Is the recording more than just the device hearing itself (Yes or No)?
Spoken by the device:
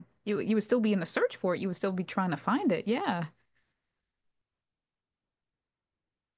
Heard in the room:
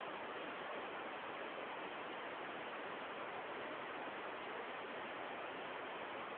No